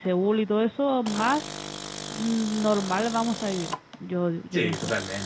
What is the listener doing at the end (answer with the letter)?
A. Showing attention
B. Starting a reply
B